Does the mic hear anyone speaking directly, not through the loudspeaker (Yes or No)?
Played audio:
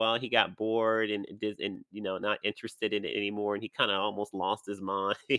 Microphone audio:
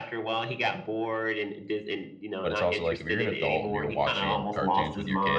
Yes